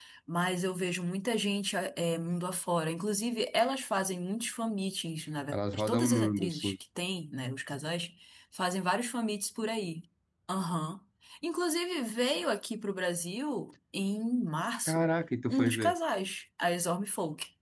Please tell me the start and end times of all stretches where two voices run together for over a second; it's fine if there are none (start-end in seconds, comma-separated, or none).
5.5-6.7